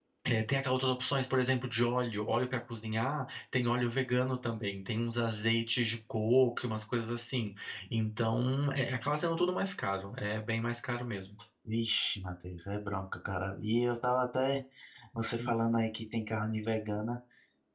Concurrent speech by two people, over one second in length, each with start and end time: none

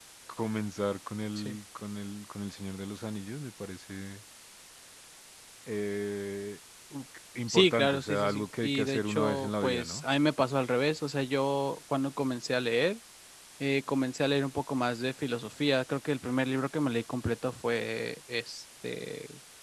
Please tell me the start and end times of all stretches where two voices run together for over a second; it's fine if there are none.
7.5-10.0

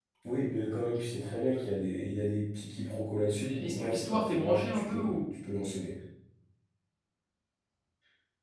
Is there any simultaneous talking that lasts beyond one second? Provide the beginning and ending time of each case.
3.3-5.3

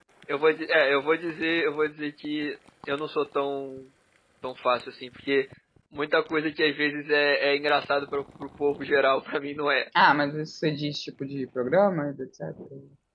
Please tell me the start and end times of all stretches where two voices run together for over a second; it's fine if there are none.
none

